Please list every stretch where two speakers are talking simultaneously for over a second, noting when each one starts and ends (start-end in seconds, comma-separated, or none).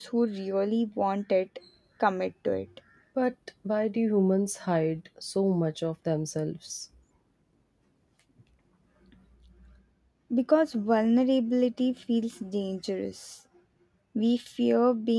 none